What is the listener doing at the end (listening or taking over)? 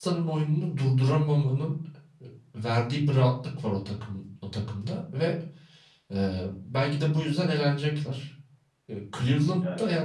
listening